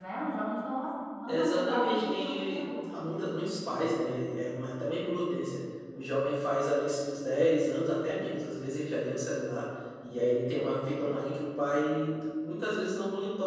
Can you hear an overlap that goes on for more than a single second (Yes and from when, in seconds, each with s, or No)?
Yes, from 1.3 s